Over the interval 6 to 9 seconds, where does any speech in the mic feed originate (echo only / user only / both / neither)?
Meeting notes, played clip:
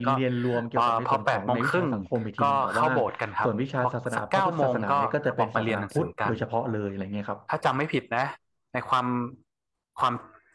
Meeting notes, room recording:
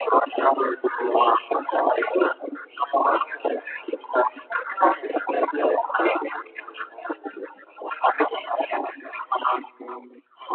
echo only